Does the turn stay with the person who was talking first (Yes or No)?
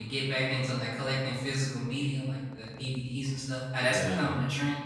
Yes